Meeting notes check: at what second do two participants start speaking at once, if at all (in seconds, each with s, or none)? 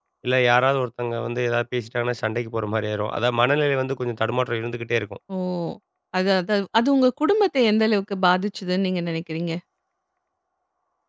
none